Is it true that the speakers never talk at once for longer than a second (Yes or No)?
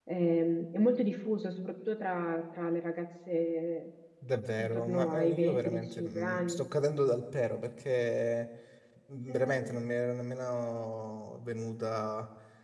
No